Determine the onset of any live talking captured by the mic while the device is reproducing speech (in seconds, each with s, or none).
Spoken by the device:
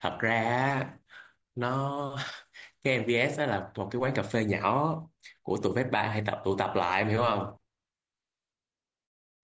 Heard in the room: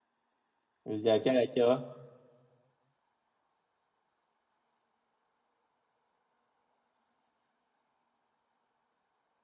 0.8 s